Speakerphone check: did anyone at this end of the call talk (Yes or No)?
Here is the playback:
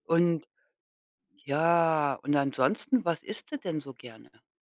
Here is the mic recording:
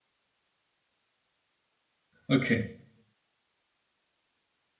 Yes